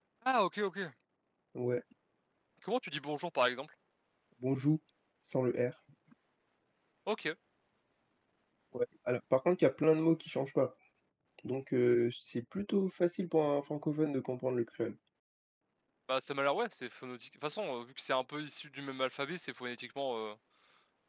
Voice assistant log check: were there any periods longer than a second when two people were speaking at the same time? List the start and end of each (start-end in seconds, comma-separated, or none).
none